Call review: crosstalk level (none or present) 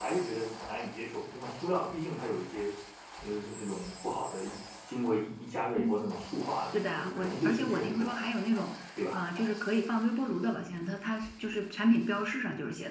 present